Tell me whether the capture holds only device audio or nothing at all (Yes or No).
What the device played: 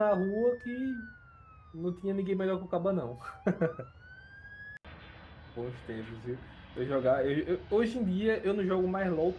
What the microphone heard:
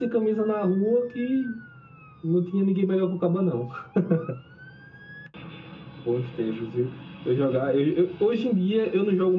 Yes